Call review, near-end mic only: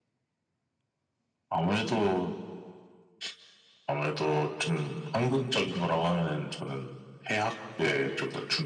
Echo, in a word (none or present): present